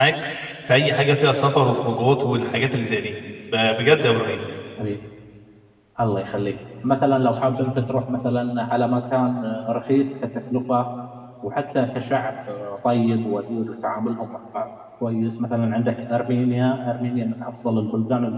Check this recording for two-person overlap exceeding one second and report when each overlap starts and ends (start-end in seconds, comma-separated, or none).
none